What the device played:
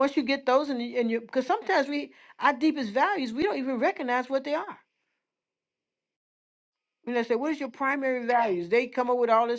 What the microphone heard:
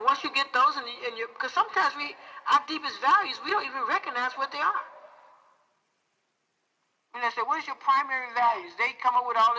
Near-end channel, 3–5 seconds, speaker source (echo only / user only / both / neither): echo only